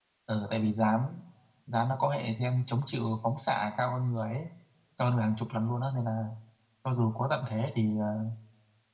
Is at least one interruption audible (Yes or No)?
No